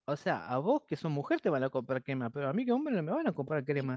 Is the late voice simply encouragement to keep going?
No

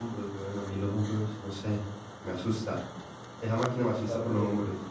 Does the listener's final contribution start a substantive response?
No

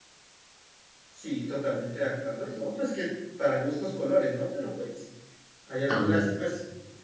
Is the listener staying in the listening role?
Yes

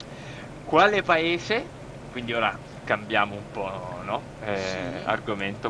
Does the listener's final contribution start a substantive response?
No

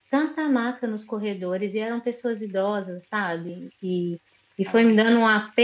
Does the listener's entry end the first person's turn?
No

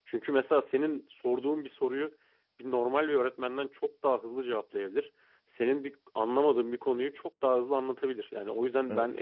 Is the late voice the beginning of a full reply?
No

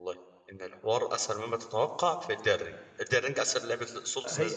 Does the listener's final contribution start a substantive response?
Yes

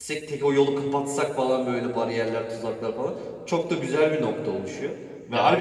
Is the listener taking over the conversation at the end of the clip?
No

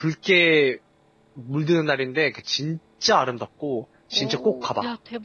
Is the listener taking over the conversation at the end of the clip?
Yes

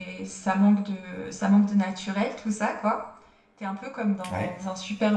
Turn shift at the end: No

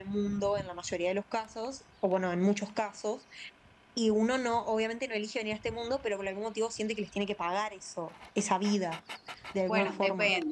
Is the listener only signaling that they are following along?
No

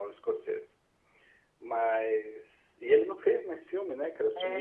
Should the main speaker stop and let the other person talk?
Yes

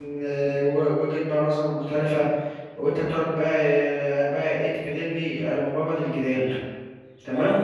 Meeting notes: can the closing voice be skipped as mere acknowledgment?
No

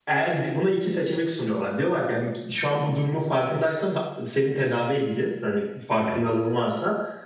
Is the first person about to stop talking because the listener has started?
No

